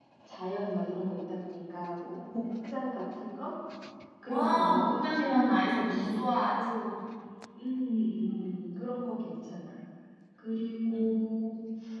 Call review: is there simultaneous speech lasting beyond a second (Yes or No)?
Yes